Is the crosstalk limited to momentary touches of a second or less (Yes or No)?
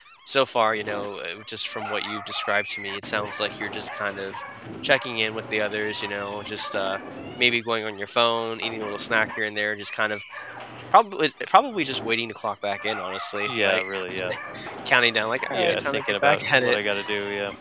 No